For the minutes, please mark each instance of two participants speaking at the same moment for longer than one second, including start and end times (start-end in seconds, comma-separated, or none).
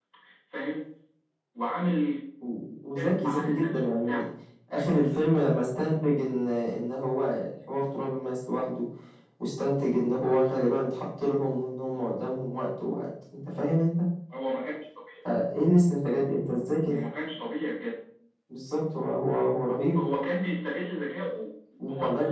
3.0-4.2